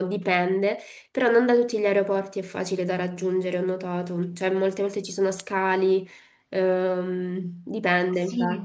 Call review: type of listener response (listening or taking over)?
taking over